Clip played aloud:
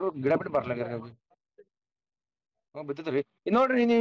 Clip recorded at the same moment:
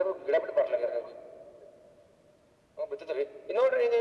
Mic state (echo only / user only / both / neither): echo only